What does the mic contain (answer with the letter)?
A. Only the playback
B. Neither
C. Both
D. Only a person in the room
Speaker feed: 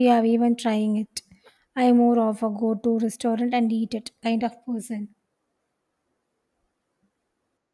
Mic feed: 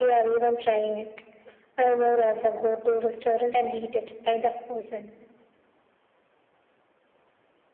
A